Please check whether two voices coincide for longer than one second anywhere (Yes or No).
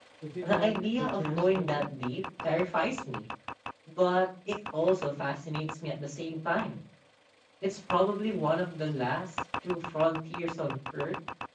Yes